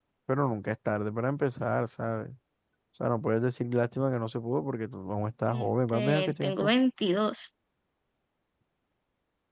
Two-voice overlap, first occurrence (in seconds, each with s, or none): 5.5 s